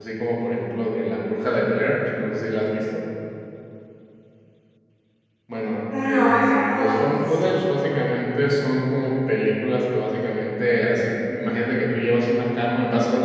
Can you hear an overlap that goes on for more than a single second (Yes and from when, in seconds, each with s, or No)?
Yes, from 6.0 s